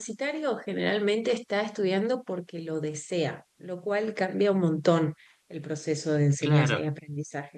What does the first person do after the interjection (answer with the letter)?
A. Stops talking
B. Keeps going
B